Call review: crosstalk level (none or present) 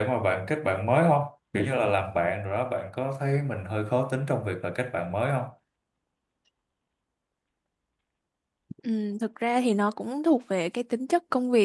none